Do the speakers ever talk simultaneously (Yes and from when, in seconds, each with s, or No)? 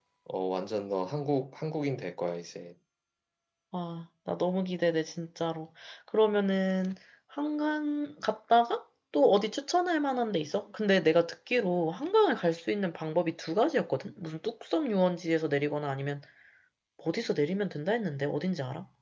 No